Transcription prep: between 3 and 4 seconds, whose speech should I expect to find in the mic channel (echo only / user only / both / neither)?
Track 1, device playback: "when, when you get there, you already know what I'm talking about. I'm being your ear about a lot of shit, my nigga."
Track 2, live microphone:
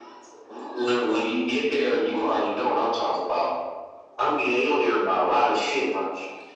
echo only